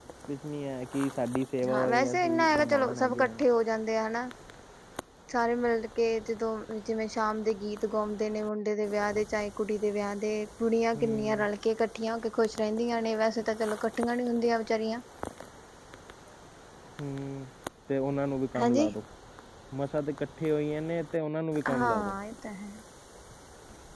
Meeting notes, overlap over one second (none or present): present